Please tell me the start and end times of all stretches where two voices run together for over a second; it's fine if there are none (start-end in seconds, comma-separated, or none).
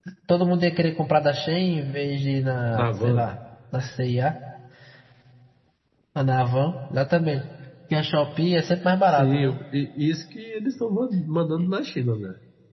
none